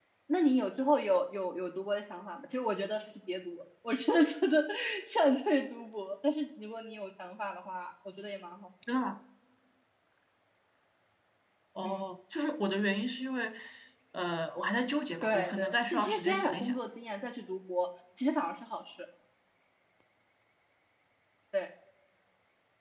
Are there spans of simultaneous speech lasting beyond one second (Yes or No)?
Yes